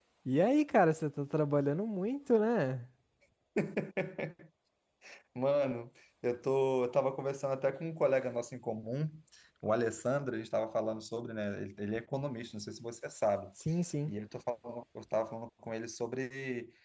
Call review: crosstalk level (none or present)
none